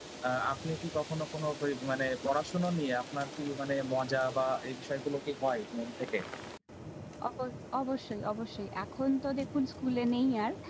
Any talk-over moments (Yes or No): No